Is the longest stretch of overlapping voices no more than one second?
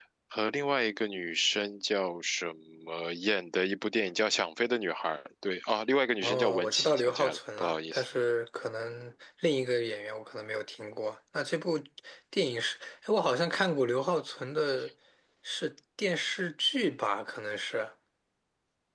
No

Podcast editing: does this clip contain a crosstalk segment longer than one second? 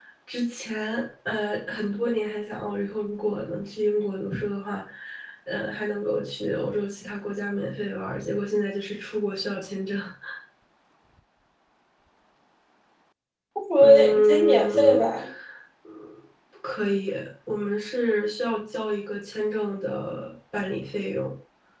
Yes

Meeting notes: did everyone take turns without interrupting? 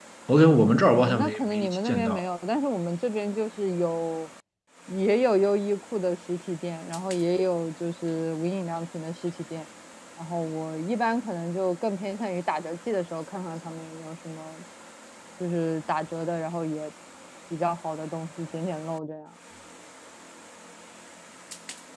No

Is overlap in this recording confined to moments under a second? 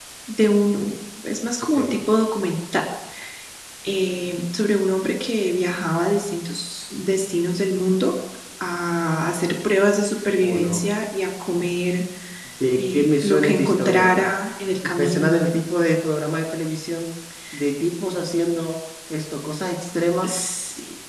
No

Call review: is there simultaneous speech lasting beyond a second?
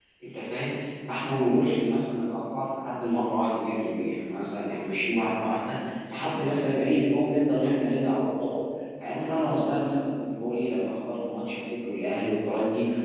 No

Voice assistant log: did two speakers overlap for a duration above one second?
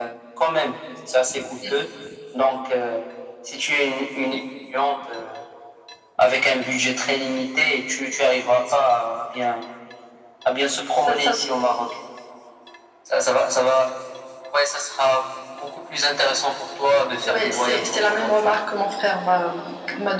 Yes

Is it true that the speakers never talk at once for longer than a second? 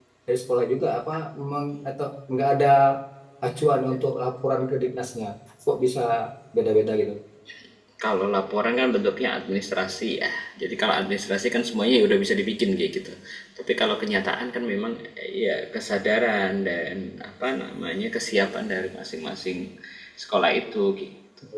Yes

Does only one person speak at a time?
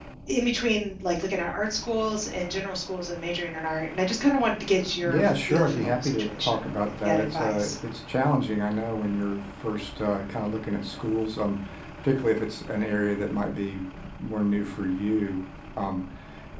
No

